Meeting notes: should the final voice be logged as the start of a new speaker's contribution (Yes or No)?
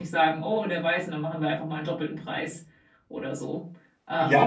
Yes